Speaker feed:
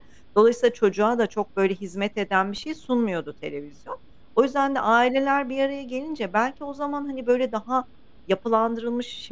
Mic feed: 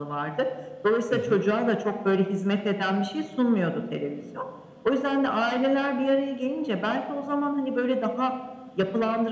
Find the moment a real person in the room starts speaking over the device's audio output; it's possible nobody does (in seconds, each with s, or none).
1.1 s